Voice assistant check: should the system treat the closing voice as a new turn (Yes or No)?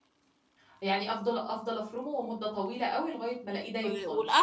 Yes